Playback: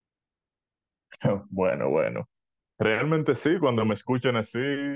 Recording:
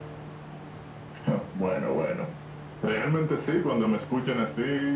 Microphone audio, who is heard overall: echo only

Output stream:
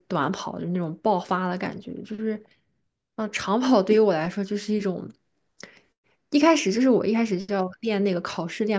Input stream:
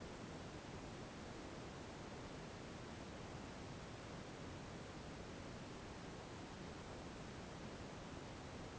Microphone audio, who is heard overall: neither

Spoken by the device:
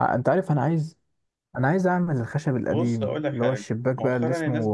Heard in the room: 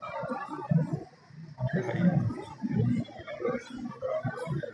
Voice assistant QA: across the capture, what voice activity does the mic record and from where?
both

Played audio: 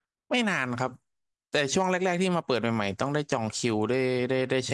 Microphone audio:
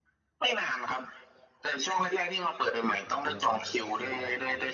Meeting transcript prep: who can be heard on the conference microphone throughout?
both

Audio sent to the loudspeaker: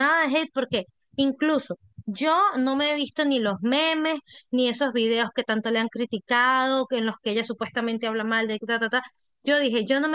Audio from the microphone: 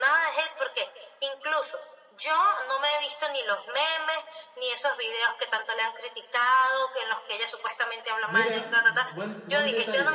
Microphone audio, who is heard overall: both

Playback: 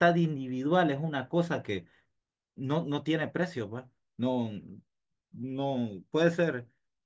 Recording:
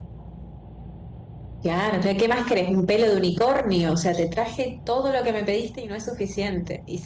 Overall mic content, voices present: user only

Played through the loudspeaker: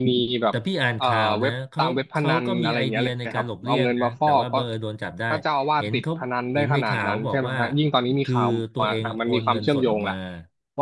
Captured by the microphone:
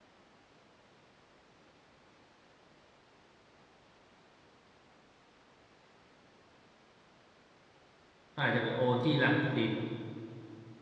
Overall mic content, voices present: user only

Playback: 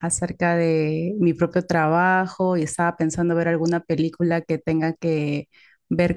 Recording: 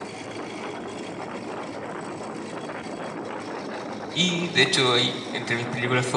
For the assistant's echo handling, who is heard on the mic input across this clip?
user only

